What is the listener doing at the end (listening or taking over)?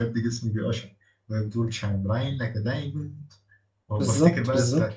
listening